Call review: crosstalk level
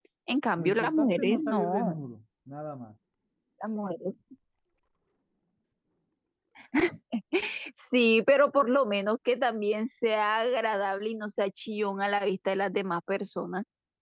present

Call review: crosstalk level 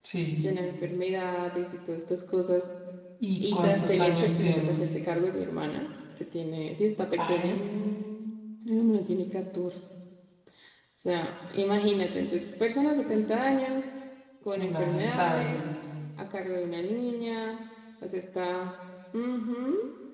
present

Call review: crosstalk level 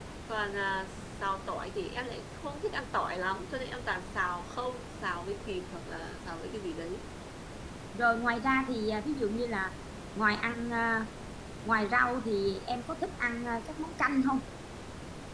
none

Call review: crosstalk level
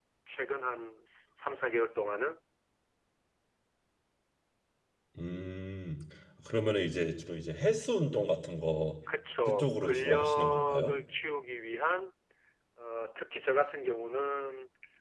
present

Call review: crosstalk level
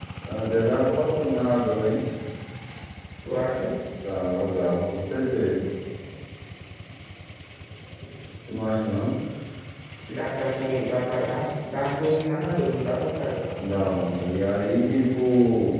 none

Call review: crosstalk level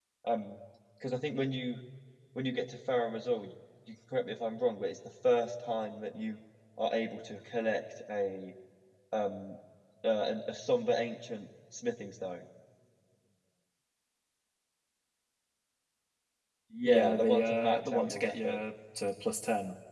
present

